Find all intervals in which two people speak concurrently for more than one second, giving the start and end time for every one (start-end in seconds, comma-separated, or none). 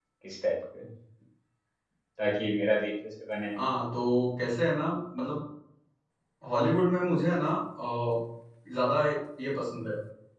none